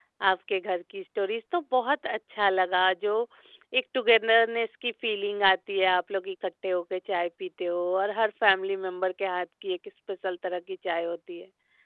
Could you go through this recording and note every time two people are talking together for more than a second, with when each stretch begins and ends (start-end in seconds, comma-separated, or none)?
none